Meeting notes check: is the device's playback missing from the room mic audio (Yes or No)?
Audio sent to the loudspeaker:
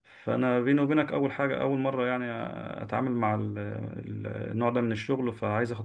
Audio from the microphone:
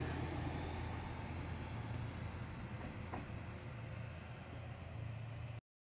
Yes